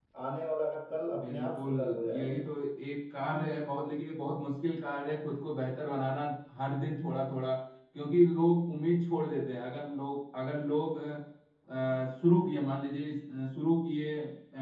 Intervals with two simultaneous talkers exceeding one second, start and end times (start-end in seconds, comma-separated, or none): 1.2-2.4